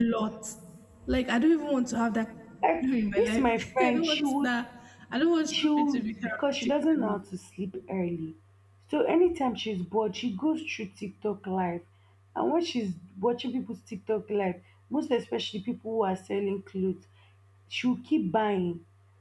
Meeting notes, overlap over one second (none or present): present